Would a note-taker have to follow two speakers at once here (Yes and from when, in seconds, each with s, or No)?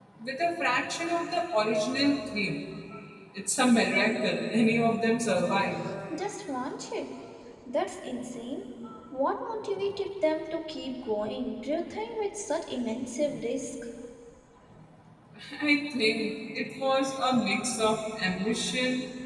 No